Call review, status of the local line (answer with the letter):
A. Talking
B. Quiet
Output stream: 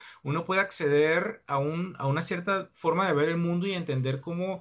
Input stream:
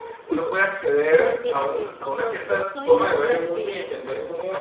A